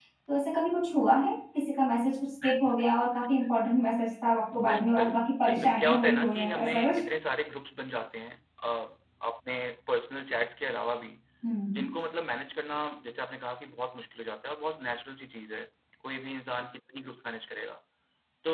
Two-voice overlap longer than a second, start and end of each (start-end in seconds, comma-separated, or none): 4.7-7.0